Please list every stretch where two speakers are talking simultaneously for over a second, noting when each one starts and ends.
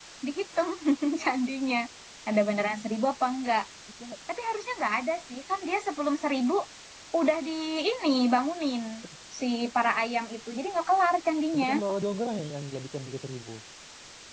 none

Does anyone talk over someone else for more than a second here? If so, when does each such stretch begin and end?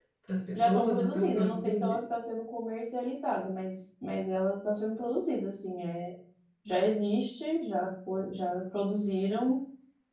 0.6-2.0

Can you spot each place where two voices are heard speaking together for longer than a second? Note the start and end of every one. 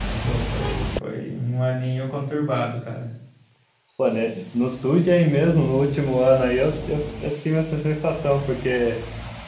none

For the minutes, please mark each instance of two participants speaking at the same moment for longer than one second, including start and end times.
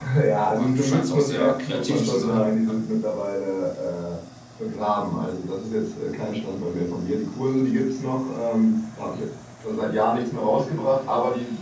0.5-2.8

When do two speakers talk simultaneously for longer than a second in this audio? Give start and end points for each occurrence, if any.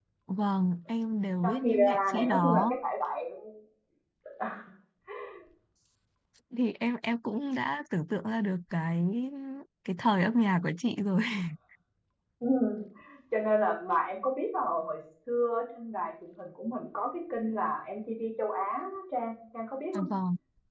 1.4-2.7

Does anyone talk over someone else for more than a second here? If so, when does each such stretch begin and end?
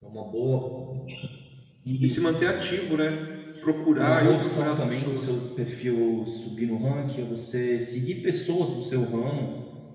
4.0-5.4

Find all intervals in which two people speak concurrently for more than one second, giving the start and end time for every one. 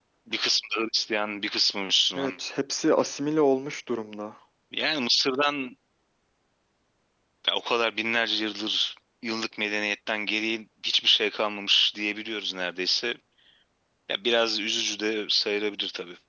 none

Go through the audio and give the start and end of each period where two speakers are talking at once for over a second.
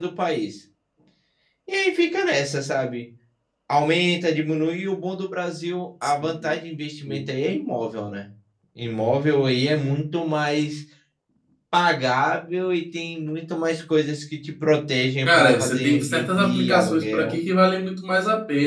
15.2-17.4

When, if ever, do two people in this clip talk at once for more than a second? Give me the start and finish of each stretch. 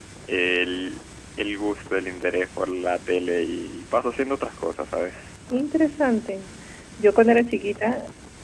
none

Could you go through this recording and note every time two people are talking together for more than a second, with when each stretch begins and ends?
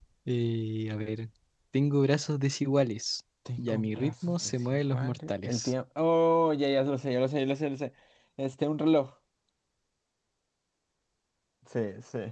3.6-5.7

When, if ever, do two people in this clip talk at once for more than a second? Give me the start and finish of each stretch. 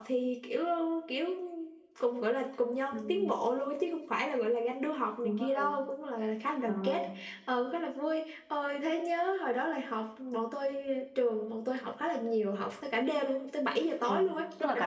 none

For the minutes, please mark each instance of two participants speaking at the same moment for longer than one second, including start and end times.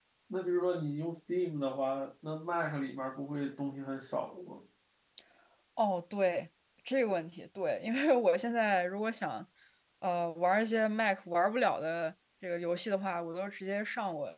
none

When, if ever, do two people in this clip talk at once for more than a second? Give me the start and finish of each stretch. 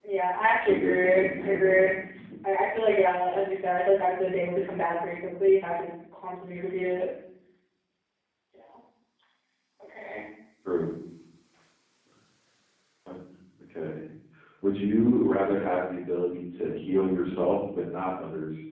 0.6-1.9

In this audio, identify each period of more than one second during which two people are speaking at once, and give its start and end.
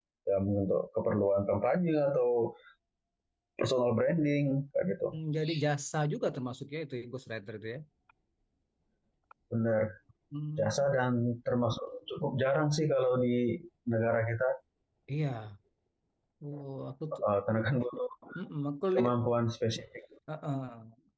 none

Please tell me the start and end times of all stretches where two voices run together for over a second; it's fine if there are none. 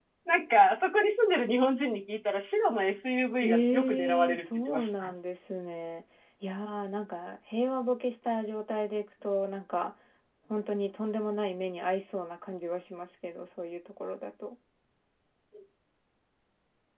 3.4-5.1

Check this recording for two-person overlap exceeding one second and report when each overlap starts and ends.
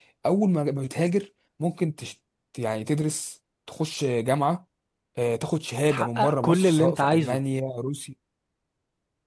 5.9-7.4

